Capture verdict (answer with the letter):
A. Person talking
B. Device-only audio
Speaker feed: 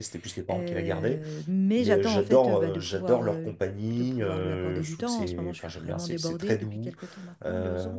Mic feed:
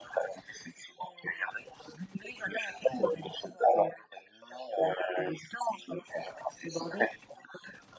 B